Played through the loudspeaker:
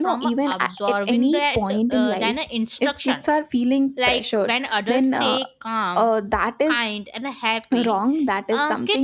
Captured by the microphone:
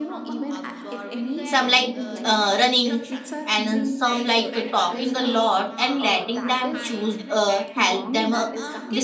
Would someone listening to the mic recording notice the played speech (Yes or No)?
Yes